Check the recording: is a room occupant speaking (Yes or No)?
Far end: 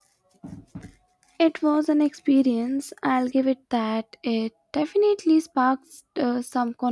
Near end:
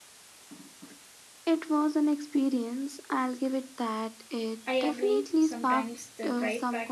Yes